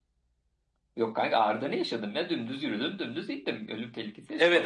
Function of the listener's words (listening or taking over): taking over